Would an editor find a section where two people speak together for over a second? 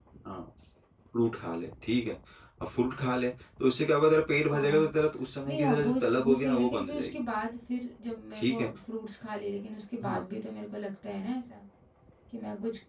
Yes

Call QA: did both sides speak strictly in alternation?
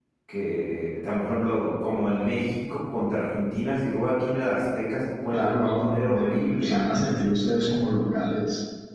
No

